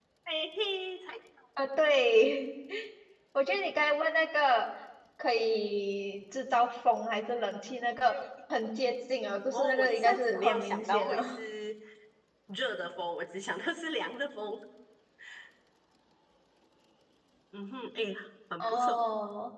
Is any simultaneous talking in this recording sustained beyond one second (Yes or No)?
Yes